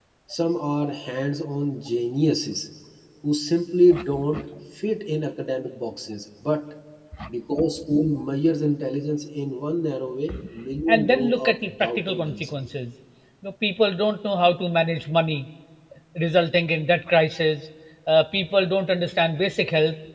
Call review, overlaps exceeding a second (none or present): present